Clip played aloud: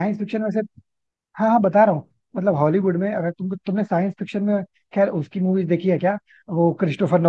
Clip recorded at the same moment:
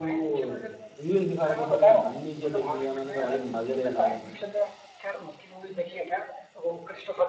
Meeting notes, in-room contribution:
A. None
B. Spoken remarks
B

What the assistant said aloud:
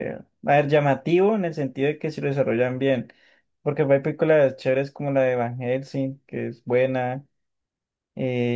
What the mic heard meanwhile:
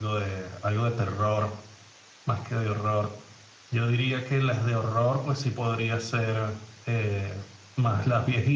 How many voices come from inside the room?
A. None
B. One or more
B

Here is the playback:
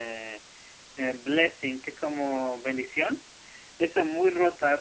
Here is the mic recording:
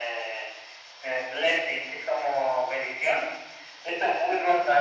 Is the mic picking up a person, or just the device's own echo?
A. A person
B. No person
B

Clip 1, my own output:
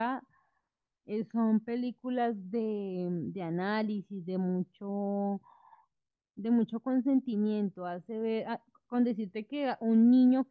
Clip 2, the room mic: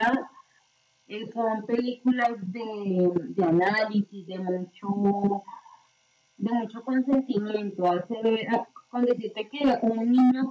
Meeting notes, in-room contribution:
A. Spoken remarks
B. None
B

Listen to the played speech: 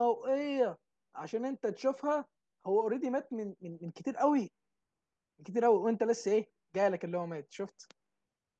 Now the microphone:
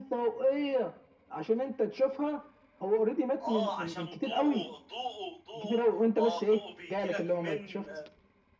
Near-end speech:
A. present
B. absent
A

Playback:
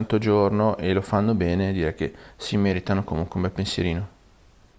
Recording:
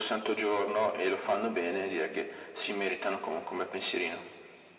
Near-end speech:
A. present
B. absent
B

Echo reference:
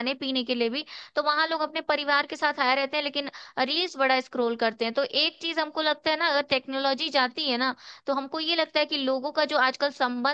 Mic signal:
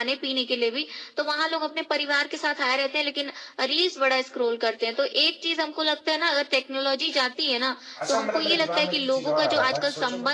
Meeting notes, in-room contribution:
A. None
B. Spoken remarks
B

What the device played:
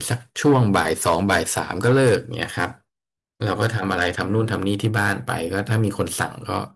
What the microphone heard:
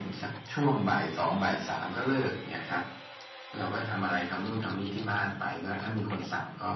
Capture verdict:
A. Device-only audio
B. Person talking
A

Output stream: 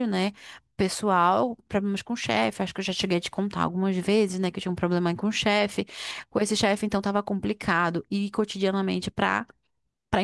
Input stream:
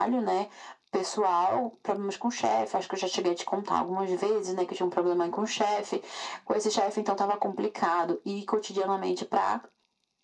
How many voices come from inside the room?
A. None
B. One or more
A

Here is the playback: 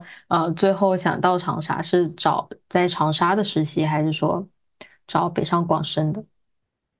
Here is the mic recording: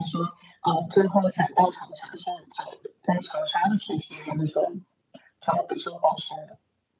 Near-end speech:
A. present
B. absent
B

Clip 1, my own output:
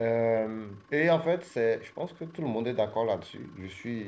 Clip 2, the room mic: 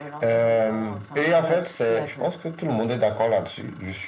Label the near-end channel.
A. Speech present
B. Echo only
A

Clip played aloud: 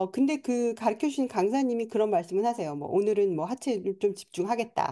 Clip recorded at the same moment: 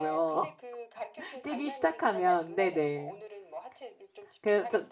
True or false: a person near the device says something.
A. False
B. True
B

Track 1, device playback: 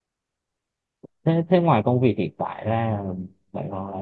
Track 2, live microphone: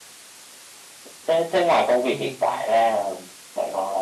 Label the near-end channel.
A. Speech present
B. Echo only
A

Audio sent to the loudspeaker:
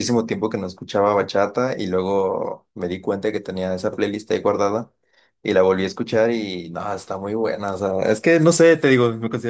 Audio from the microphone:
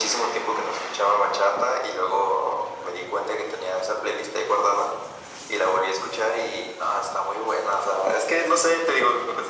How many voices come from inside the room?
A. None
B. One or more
A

